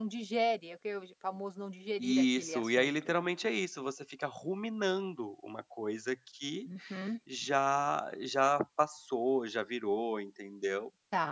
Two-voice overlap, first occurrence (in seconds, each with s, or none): 2.0 s